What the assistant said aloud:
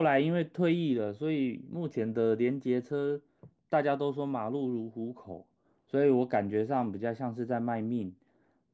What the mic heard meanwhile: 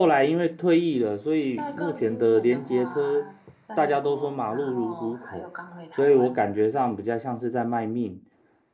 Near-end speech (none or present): present